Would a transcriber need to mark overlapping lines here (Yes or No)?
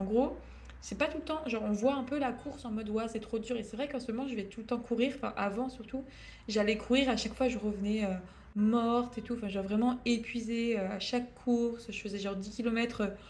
No